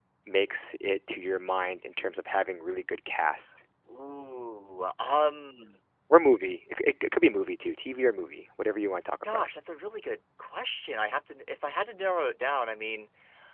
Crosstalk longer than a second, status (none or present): none